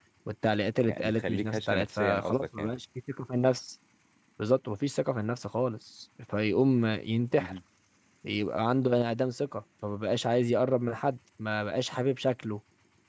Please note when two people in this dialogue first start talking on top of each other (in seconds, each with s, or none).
0.9 s